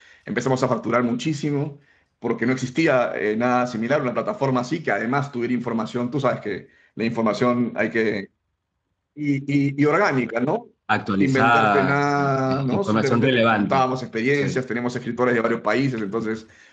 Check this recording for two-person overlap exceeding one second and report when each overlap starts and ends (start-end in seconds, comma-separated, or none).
11.2-13.8